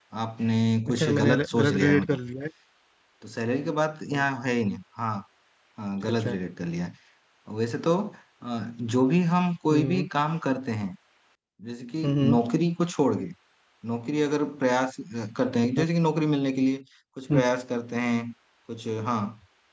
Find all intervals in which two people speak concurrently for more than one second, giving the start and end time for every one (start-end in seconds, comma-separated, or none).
0.9-2.2